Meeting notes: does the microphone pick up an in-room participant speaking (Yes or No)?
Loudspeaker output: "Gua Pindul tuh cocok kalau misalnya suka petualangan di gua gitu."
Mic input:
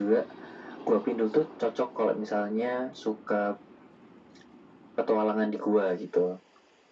No